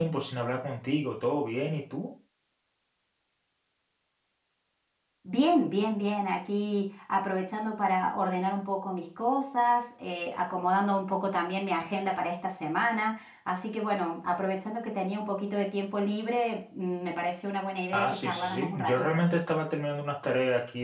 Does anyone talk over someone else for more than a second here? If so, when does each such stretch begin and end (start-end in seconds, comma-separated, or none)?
17.9-19.2